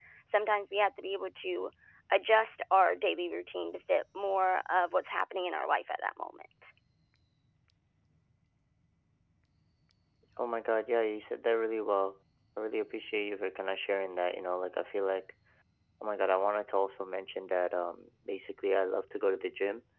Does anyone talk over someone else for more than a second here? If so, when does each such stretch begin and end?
none

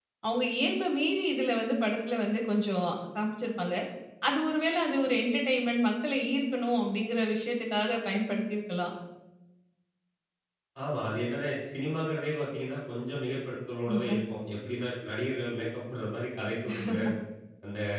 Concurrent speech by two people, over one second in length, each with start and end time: none

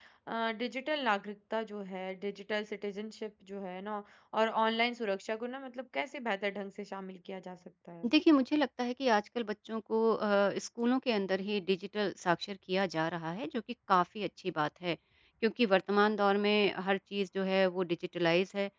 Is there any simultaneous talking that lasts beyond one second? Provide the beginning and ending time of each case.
none

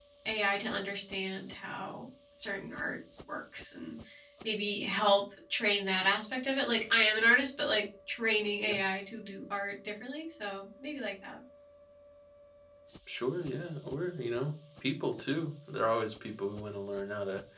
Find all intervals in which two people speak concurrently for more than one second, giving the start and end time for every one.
none

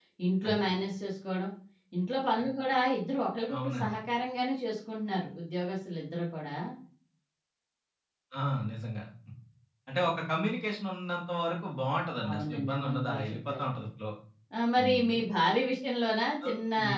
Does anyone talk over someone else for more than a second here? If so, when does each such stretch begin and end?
12.3-13.7

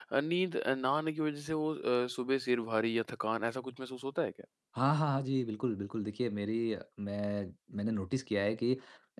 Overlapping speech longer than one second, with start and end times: none

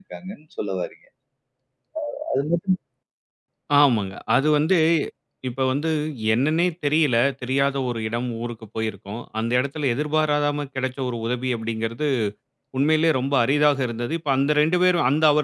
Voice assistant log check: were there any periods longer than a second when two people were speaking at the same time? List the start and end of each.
none

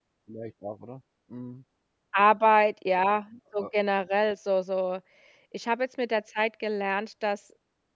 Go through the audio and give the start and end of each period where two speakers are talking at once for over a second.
none

